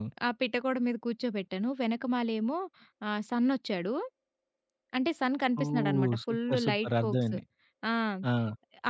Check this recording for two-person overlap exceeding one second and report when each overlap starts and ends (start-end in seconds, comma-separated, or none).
5.6-7.3